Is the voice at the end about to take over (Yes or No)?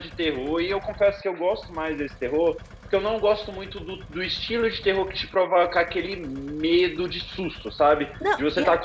No